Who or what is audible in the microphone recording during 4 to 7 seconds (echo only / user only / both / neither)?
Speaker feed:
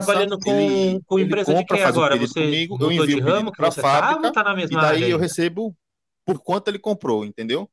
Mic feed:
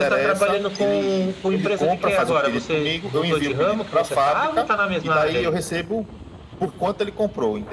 echo only